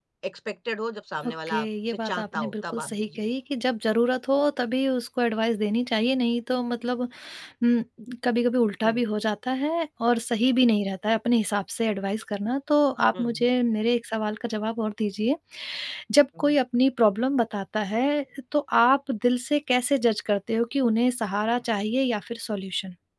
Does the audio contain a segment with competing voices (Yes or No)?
Yes